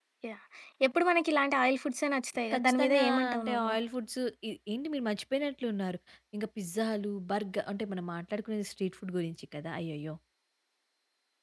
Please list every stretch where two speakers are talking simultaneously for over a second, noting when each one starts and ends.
2.5-3.7

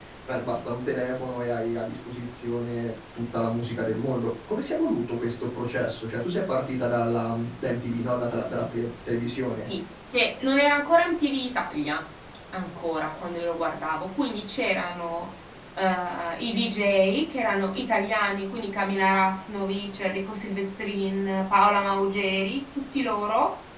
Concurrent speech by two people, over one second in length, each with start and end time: none

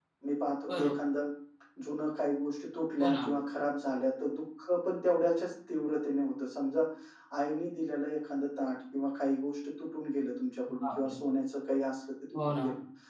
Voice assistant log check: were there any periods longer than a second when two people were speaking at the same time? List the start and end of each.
none

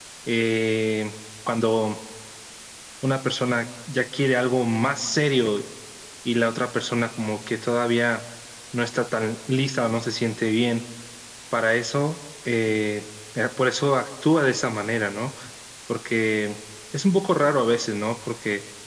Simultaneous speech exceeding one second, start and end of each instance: none

